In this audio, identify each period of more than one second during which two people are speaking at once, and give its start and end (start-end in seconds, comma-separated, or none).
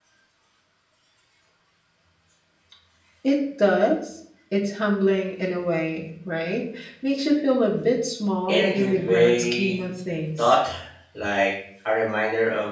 8.5-9.8